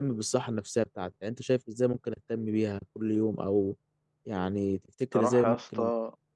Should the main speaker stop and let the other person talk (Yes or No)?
Yes